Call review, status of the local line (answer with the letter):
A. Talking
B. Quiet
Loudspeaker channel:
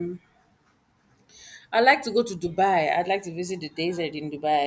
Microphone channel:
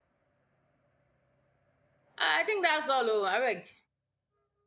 A